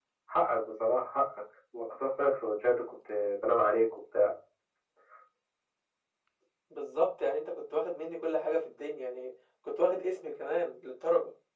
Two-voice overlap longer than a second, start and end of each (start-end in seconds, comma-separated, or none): none